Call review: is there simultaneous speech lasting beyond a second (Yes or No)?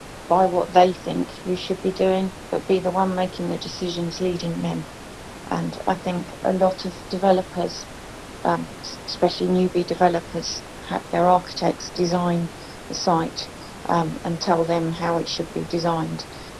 No